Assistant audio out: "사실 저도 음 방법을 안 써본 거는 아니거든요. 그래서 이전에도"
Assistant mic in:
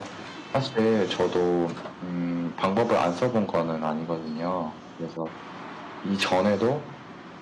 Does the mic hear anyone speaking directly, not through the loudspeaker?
No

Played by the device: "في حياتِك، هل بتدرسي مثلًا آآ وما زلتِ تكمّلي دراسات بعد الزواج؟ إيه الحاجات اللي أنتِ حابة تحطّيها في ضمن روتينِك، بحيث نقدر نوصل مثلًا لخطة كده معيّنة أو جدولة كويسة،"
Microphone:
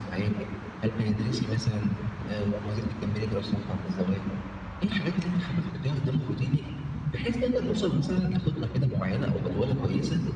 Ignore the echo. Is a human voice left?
No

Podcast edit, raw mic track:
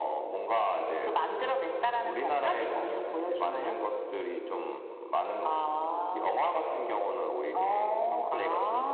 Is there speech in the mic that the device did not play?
No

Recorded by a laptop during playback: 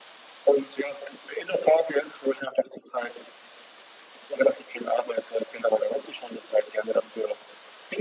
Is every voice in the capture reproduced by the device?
Yes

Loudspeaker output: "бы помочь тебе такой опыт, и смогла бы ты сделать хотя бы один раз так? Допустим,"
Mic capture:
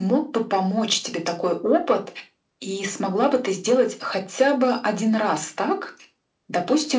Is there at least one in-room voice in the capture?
No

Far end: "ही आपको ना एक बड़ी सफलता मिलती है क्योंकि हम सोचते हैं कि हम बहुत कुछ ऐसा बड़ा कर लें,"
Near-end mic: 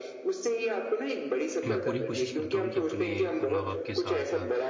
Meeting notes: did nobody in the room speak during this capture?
No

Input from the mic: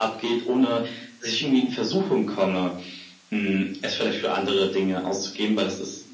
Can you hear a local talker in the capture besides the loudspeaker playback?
No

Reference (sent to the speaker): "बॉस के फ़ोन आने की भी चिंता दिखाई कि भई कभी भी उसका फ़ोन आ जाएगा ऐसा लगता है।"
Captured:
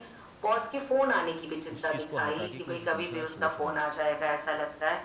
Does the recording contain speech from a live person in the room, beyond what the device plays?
Yes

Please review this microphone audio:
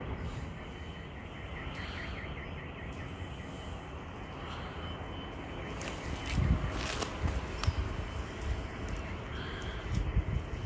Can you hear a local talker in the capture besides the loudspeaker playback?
No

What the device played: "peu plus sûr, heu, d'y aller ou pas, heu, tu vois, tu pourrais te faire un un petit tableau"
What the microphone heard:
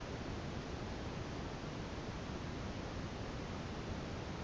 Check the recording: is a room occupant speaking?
No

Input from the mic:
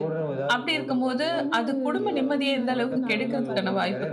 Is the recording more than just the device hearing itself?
Yes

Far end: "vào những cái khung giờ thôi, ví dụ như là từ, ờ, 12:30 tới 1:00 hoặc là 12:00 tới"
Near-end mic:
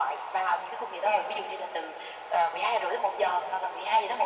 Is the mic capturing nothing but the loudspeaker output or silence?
Yes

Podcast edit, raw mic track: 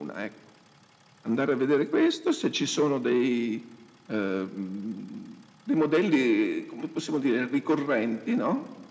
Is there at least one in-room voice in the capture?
No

